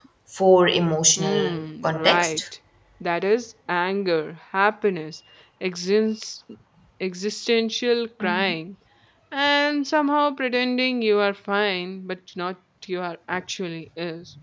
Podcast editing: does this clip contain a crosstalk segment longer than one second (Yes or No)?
Yes